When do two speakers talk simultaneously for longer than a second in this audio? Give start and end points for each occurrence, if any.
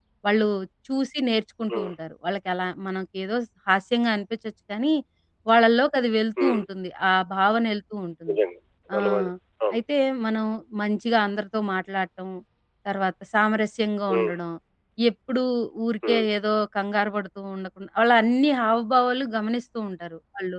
none

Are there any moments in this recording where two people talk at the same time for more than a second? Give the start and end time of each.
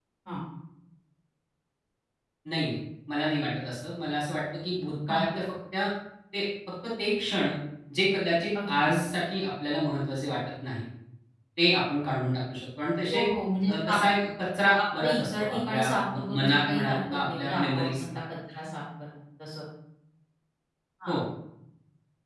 15.0-18.0

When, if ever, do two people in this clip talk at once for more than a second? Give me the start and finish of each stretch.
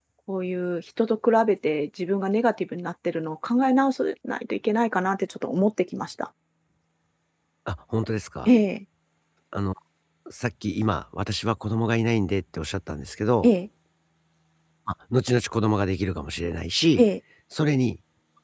none

